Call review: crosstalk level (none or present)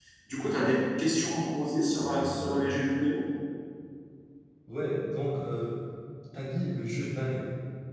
none